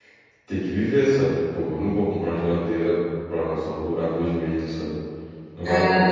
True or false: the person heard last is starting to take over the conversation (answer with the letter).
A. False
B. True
B